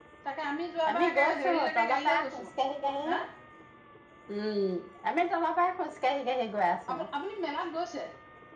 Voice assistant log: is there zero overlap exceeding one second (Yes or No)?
No